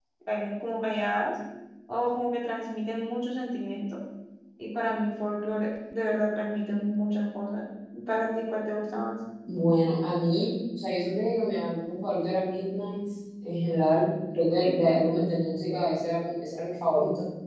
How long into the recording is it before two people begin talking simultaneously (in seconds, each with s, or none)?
none